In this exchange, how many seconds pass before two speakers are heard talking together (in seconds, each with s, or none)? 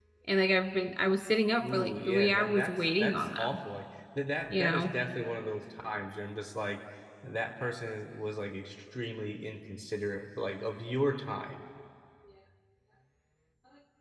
1.6 s